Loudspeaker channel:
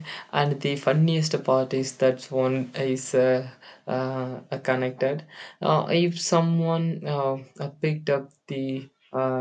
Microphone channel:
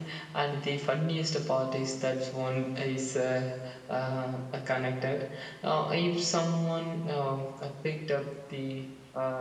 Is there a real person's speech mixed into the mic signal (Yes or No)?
No